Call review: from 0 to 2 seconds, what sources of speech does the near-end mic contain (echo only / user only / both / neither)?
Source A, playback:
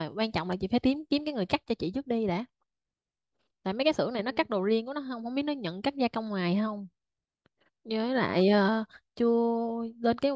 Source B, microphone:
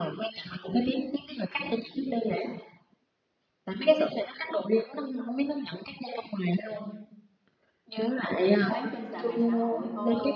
echo only